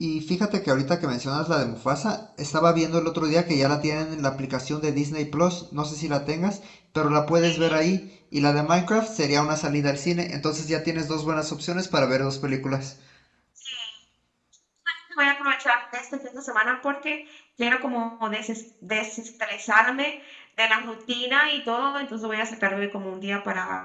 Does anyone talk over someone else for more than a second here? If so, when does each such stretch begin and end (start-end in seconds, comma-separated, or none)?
none